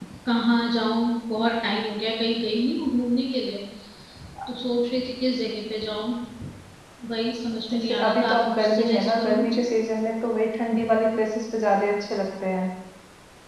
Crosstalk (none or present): present